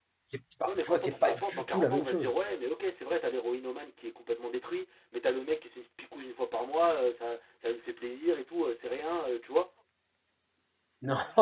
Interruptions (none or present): present